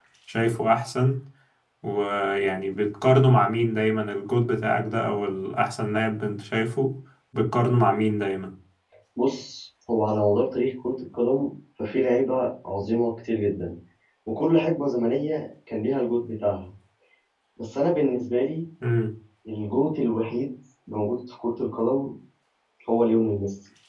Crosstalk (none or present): none